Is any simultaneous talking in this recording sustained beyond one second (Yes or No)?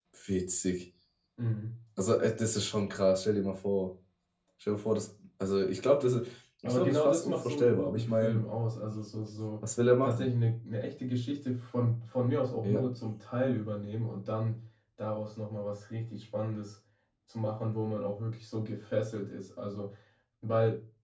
Yes